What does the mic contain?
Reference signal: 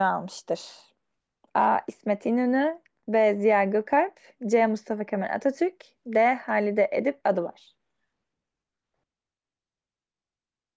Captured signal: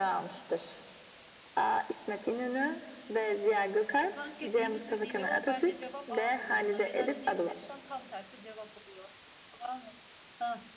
both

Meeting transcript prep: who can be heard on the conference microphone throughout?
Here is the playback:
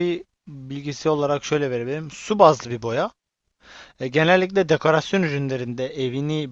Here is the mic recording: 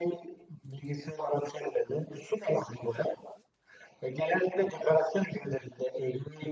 echo only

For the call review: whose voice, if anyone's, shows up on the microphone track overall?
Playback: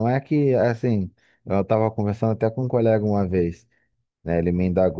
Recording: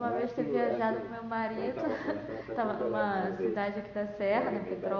both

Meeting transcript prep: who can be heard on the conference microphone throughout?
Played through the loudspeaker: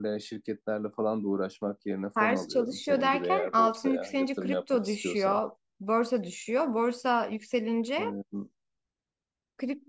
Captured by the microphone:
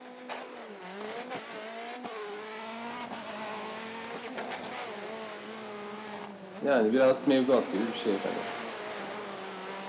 user only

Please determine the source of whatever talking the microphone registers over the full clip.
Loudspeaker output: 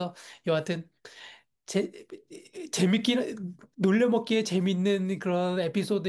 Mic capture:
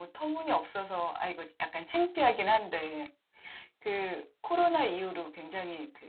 user only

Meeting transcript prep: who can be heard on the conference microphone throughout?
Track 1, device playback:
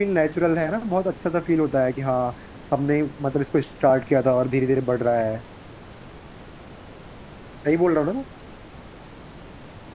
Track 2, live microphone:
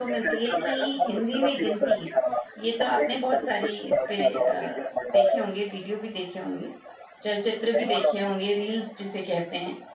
both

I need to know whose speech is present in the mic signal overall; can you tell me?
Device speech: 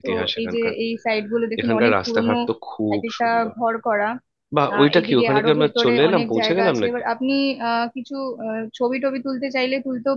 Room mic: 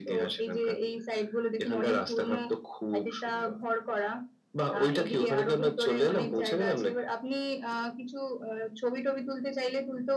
echo only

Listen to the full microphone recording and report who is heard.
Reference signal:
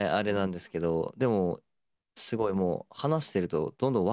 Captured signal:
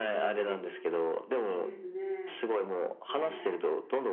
both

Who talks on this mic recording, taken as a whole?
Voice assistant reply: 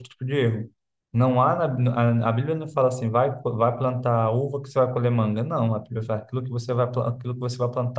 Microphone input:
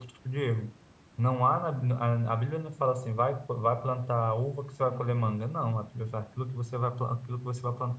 both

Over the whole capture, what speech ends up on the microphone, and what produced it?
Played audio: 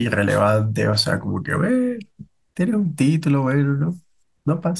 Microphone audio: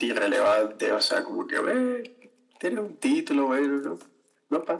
echo only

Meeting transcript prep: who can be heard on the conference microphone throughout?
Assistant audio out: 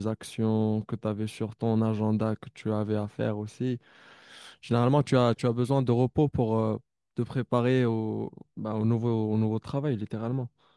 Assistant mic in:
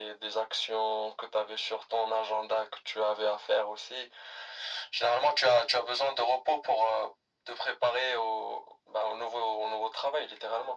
echo only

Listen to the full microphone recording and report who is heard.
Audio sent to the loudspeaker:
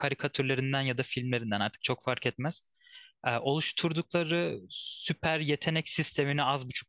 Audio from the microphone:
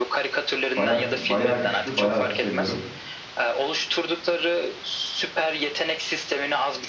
both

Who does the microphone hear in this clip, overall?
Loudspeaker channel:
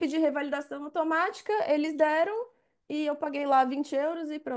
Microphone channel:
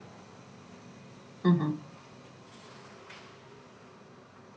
user only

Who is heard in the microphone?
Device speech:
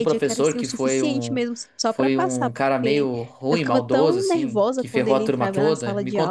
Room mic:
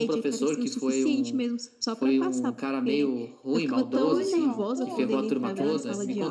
both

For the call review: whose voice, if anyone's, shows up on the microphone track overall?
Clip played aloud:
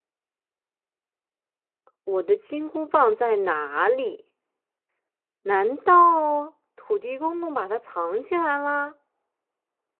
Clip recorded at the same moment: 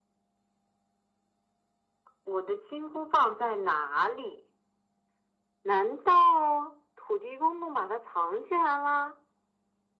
echo only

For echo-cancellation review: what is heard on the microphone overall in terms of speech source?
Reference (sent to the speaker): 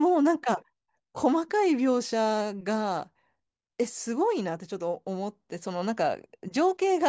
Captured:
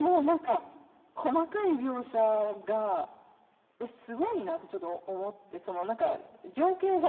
echo only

